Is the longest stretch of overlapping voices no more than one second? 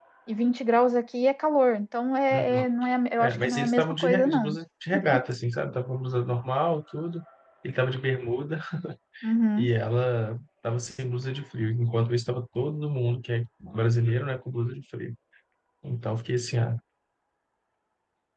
No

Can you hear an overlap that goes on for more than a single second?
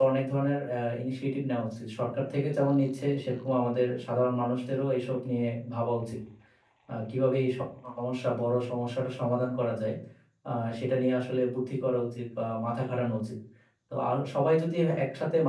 No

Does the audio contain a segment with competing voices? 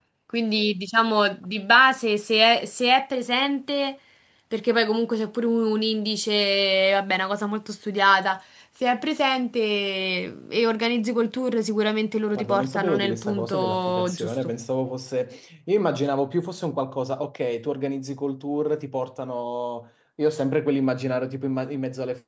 Yes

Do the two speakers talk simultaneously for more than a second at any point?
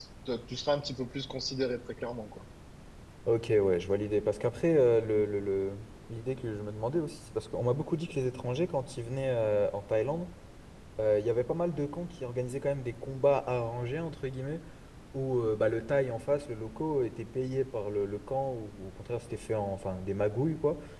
No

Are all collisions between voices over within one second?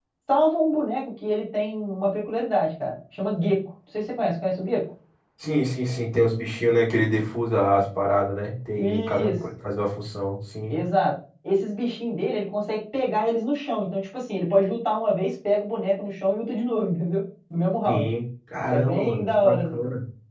No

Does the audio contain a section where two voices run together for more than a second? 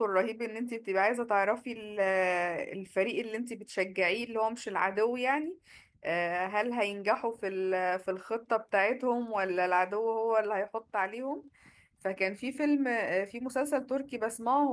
No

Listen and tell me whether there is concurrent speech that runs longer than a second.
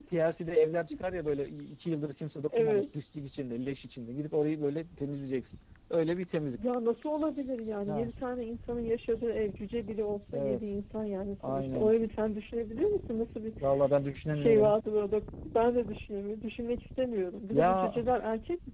No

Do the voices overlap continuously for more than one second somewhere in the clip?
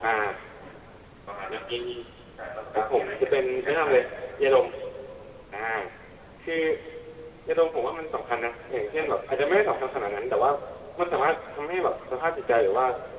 Yes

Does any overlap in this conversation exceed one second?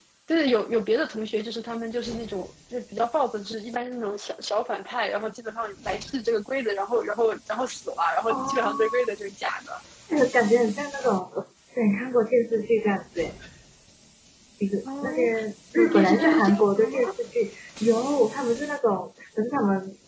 Yes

